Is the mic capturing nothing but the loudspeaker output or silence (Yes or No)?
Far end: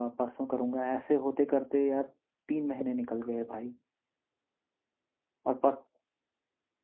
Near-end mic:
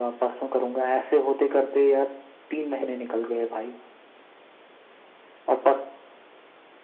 Yes